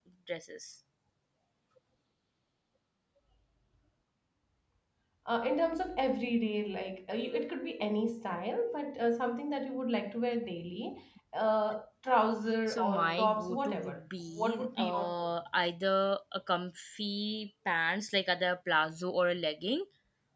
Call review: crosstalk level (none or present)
present